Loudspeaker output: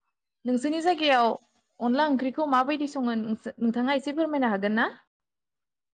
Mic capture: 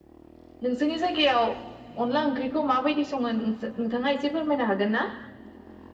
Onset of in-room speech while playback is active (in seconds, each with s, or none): none